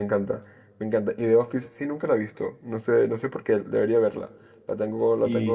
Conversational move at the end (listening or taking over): taking over